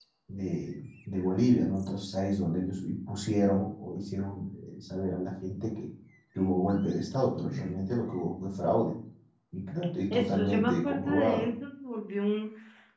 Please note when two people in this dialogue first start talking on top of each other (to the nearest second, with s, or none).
10 s